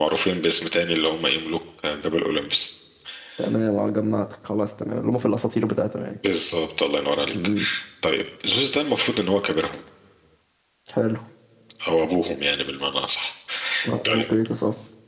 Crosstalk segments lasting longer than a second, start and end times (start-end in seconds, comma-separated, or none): none